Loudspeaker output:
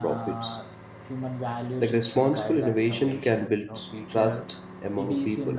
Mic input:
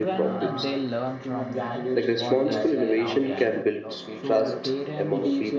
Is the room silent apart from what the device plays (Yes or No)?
No